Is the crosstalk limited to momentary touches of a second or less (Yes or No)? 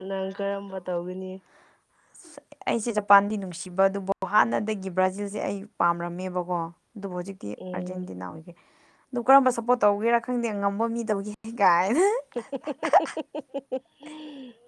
Yes